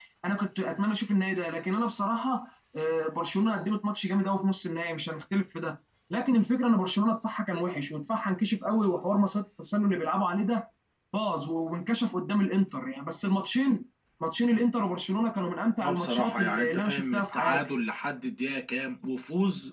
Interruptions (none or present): present